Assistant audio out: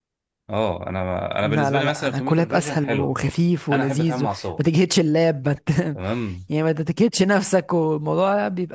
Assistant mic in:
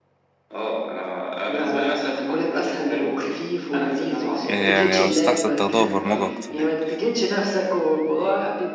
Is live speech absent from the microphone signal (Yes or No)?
No